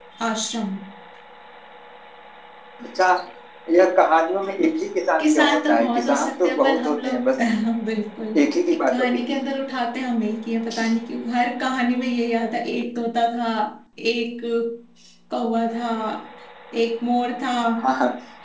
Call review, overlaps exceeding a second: present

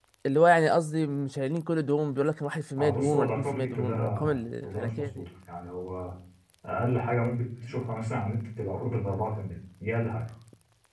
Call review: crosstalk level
present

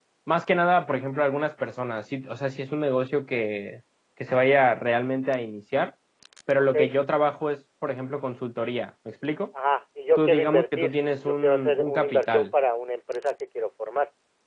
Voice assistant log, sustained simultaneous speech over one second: present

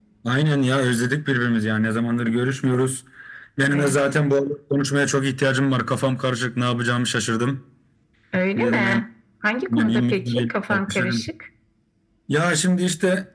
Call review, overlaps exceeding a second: present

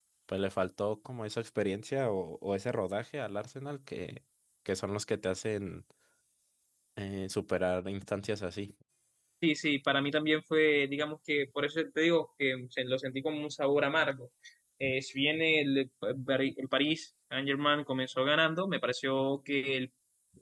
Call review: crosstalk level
none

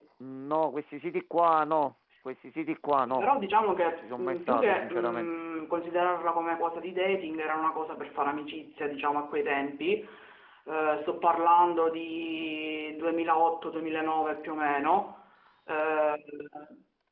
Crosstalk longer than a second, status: present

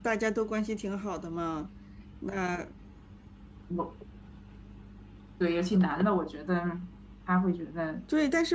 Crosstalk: none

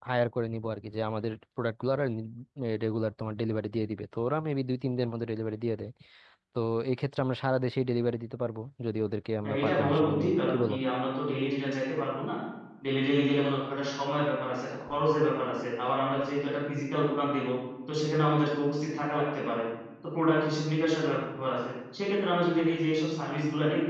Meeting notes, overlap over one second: present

